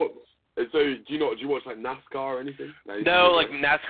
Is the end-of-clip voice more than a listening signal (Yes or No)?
Yes